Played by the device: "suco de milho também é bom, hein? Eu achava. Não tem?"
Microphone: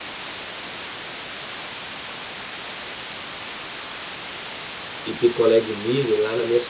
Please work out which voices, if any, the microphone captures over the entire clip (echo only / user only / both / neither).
user only